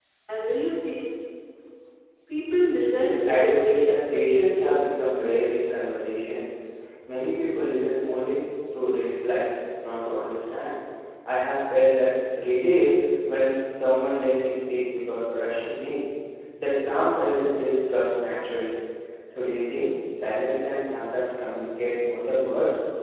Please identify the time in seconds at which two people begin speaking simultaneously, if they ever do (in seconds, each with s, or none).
2.9 s